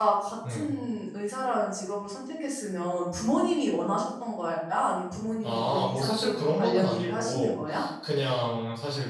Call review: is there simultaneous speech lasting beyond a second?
Yes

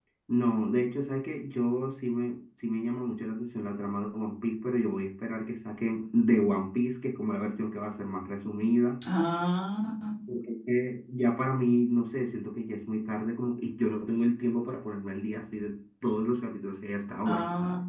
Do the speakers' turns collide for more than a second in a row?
No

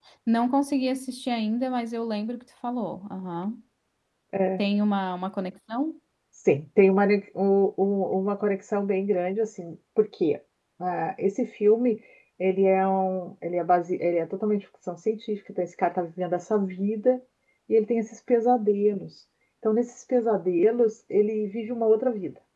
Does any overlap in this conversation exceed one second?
No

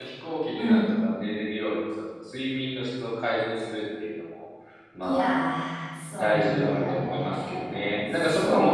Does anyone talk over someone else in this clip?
Yes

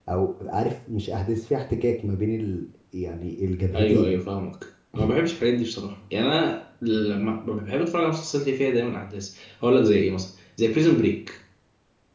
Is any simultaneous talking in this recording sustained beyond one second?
No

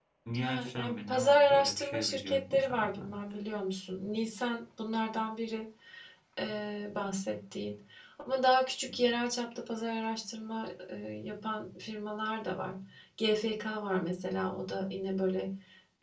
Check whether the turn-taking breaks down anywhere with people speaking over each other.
Yes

